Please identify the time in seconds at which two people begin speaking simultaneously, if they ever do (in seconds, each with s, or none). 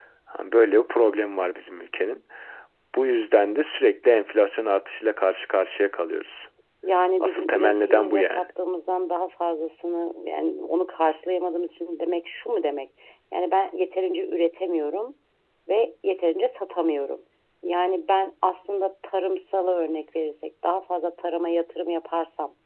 7.2 s